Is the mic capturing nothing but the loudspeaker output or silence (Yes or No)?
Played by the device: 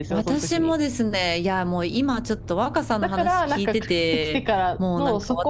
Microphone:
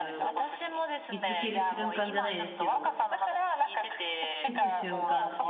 No